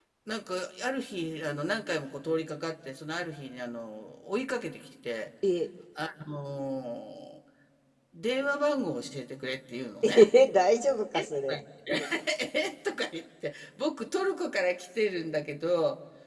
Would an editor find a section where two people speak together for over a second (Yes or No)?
No